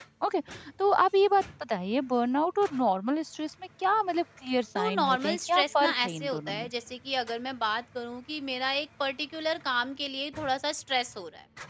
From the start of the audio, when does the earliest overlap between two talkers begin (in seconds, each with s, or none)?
4.8 s